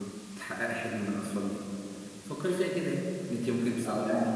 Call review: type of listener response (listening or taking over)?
listening